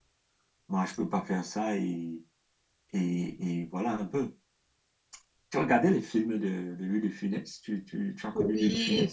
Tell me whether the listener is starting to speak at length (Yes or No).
Yes